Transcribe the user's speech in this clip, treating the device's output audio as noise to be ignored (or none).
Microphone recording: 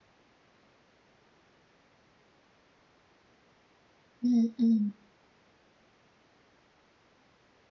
嗯嗯